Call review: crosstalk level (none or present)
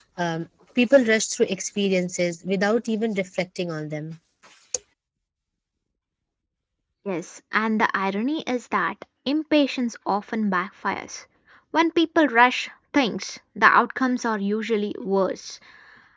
none